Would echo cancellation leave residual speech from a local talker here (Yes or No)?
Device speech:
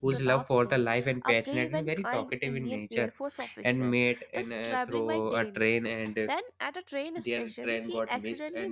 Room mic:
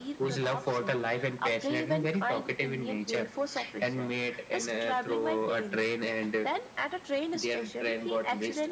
No